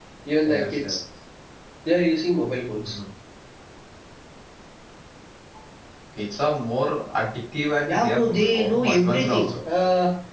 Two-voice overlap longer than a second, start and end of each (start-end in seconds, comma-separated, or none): 7.9-9.5